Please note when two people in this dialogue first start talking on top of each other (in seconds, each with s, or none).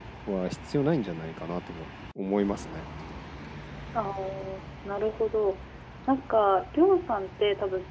none